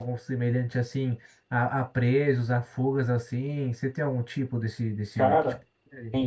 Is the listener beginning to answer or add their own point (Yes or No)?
Yes